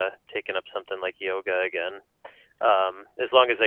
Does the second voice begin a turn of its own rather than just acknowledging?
No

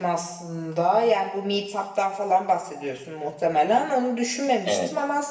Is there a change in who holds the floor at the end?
No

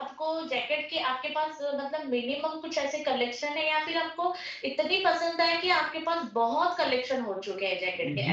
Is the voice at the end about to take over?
Yes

